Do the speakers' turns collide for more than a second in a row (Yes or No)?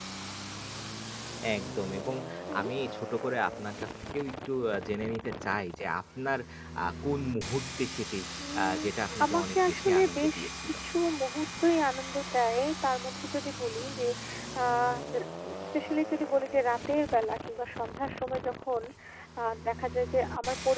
Yes